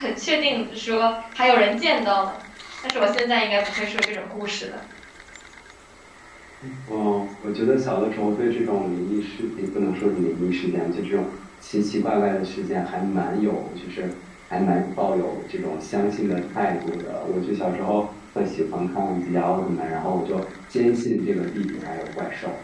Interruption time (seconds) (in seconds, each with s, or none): none